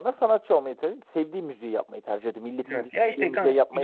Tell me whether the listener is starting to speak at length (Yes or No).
Yes